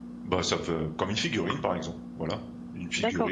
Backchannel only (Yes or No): No